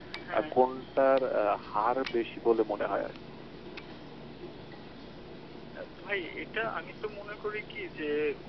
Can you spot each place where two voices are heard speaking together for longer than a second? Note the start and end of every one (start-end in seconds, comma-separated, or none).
none